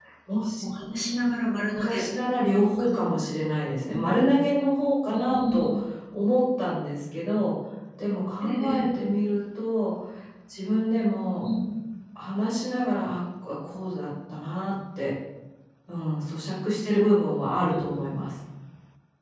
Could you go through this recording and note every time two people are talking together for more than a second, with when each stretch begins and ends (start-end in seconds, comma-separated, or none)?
none